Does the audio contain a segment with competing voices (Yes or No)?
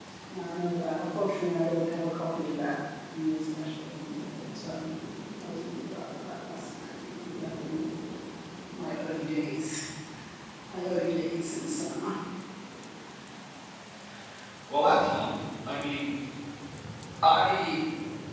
No